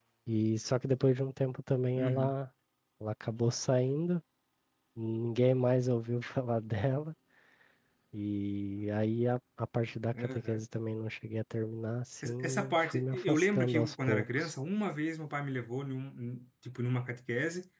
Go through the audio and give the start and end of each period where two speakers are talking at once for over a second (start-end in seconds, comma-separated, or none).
12.2-14.5